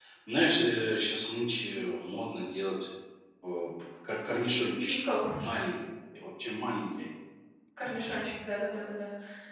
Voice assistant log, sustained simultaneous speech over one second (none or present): none